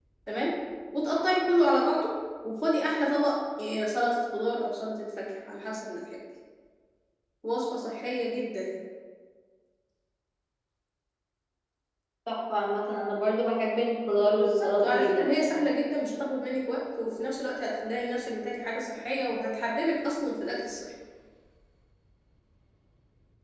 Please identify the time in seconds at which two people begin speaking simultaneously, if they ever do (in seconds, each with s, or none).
14.3 s